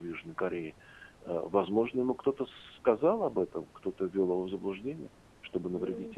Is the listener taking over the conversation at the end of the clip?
Yes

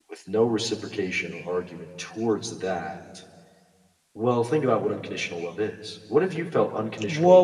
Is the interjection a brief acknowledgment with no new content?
No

